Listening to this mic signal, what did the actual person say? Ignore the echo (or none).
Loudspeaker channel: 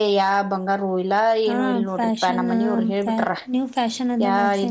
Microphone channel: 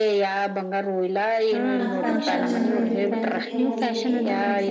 ನಮಗು ಒಂದ ಫಂಕ್ಷನ್ನದ್ ಊ ಕ್ಕಲ್ಲ ಹೋಗಿದ್ವಿ